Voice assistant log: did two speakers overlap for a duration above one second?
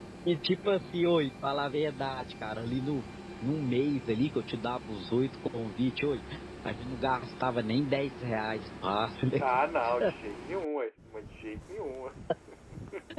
No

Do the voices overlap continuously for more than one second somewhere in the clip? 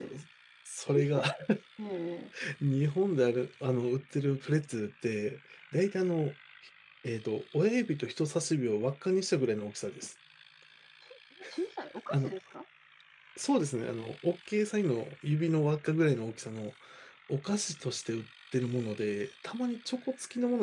No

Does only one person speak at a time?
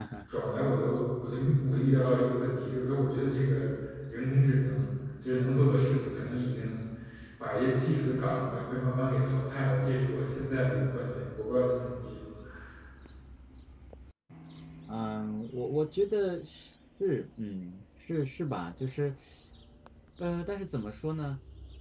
Yes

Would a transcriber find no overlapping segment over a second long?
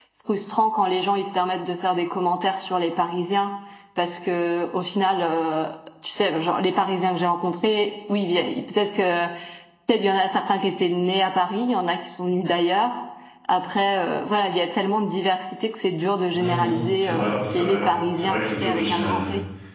No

